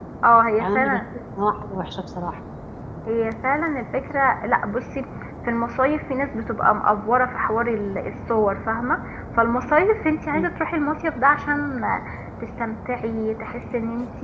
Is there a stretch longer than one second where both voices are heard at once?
No

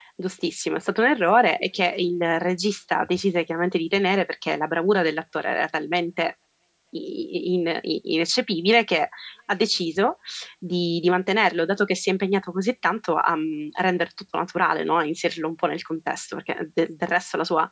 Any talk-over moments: No

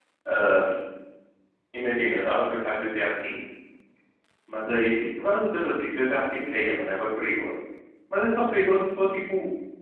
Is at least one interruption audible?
No

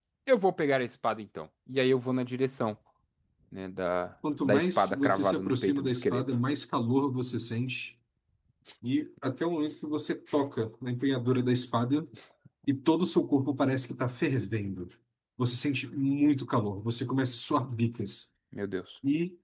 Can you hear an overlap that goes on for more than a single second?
Yes, from 4.2 s

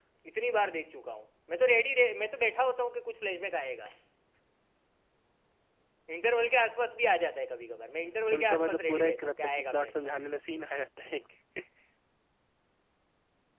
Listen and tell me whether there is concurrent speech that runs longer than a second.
Yes, from 8.3 s

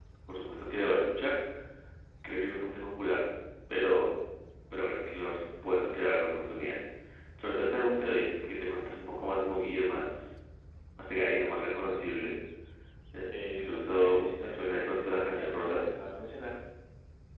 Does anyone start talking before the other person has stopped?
Yes, from 13.4 s

